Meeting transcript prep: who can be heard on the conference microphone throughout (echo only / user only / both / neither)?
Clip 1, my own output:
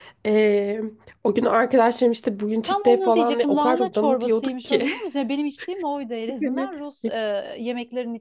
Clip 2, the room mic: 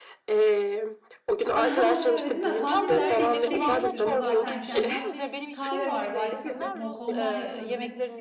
both